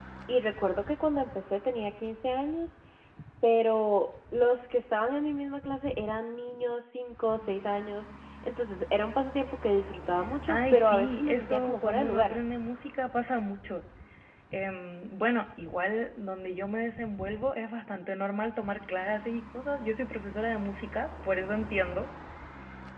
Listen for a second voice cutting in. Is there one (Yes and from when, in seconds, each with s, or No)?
Yes, from 10.5 s